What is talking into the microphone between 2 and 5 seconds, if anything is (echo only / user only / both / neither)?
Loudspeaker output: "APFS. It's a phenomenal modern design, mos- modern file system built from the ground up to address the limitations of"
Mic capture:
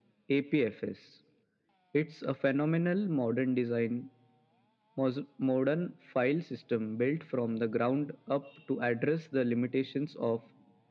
echo only